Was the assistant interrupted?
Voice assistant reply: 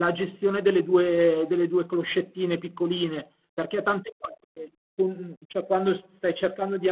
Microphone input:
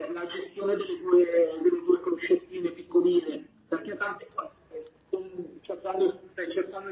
No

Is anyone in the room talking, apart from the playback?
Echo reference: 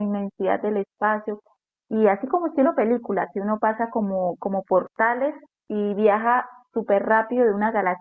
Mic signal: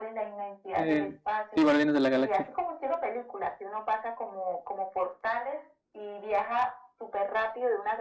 Yes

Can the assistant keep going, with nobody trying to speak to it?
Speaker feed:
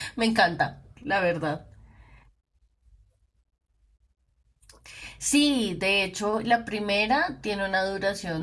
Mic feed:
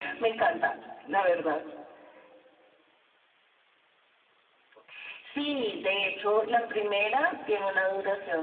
Yes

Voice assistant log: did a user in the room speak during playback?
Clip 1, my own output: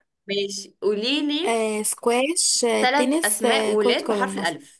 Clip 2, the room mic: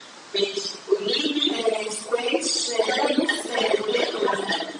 No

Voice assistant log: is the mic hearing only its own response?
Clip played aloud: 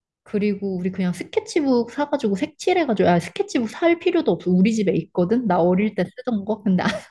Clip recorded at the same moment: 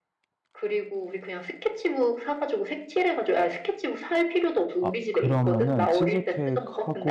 No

